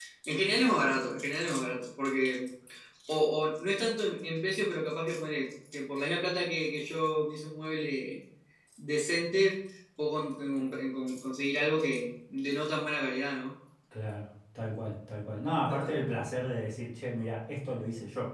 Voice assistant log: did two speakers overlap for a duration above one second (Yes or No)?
No